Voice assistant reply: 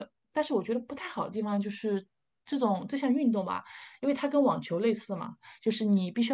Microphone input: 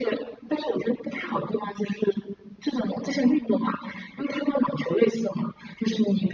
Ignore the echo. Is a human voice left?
No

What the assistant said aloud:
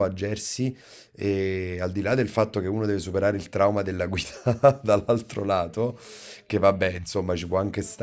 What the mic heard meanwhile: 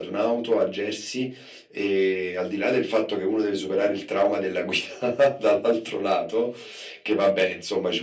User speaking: No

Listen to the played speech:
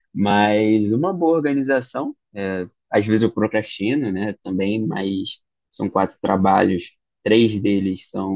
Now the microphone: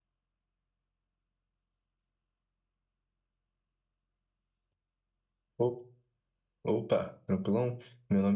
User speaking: Yes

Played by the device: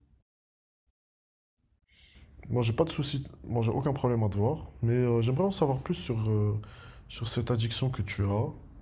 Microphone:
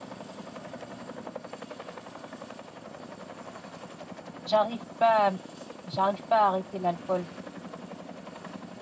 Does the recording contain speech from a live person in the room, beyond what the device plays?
Yes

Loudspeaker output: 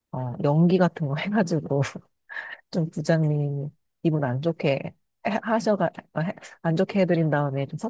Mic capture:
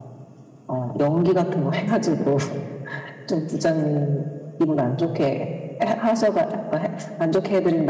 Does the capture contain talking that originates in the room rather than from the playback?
No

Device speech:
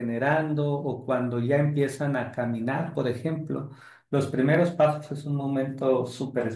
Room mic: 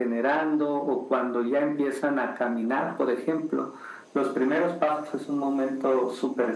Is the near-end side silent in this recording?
Yes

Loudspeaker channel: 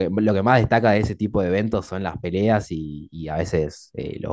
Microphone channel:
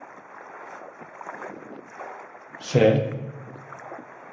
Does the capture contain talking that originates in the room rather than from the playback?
Yes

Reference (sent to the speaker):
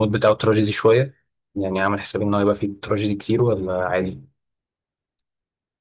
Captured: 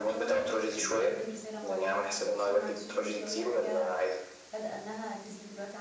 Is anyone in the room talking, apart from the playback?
Yes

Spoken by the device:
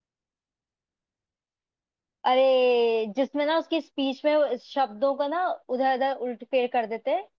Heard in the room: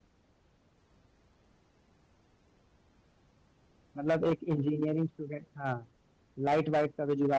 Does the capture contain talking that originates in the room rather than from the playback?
Yes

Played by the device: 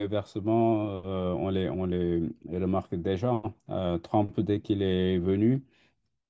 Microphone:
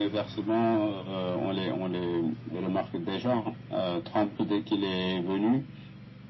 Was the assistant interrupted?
No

